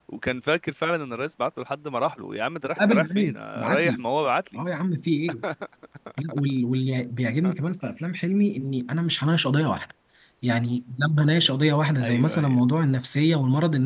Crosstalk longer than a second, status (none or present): present